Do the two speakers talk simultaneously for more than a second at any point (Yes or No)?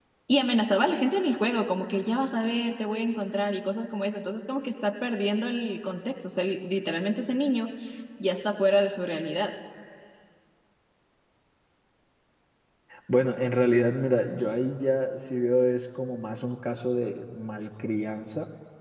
No